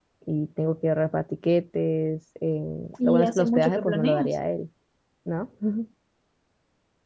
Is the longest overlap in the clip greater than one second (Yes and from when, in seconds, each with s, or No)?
Yes, from 3.0 s